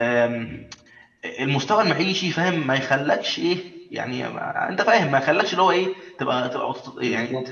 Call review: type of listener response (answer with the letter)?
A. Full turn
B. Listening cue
B